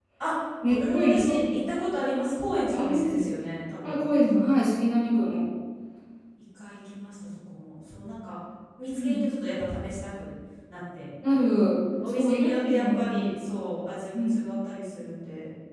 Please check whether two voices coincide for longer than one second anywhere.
Yes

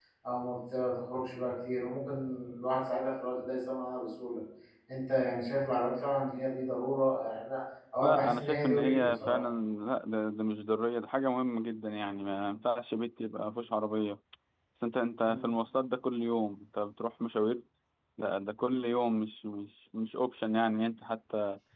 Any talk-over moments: Yes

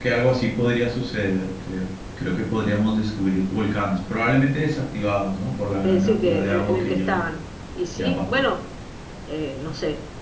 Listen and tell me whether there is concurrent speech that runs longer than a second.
Yes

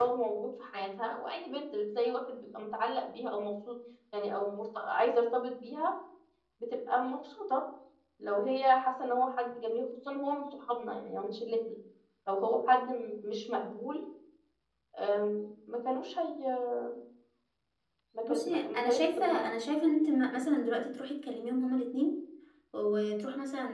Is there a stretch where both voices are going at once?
Yes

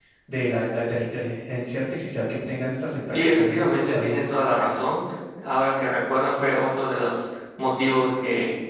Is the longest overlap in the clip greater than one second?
Yes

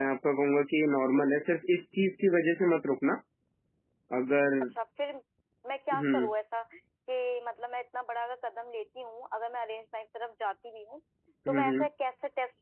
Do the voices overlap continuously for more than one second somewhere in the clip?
No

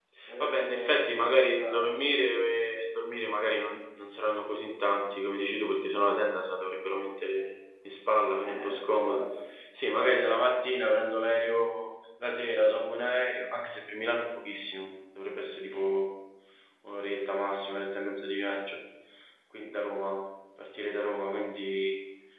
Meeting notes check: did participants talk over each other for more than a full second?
Yes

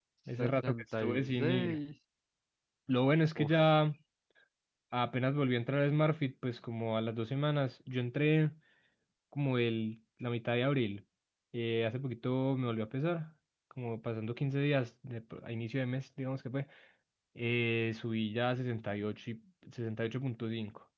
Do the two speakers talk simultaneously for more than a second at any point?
Yes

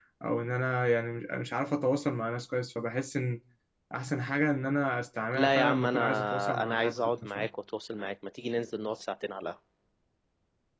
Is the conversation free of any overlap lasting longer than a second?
No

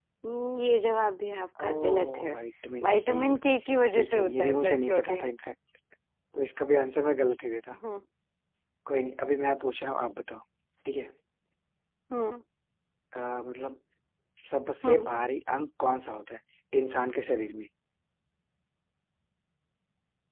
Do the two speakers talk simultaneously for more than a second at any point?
Yes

